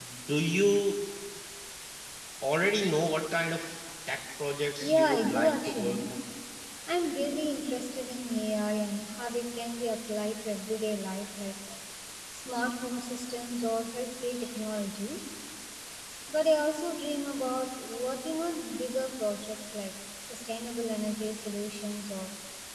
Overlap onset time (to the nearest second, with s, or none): 5 s